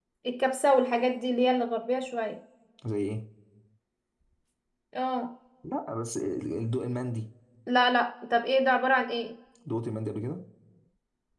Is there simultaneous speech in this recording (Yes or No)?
No